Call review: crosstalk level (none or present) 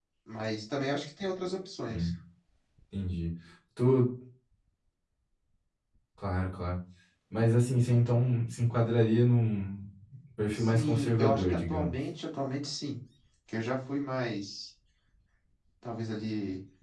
present